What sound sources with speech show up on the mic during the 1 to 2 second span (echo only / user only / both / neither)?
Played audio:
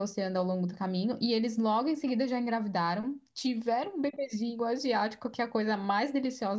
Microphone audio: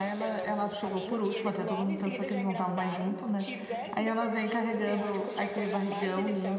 both